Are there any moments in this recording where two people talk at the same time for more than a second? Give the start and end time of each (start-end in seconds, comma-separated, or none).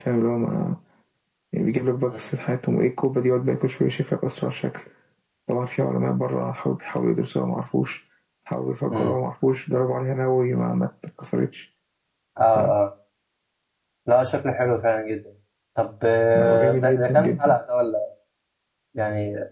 16.4-17.6